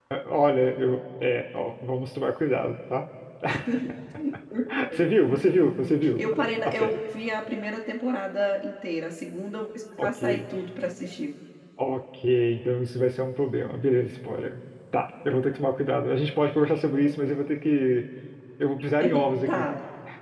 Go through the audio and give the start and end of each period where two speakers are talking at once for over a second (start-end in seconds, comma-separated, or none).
none